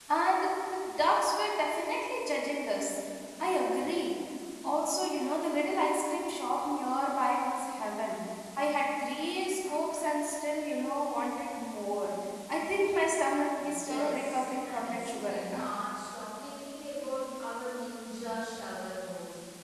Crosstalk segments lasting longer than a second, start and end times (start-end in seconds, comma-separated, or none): 13.6-15.7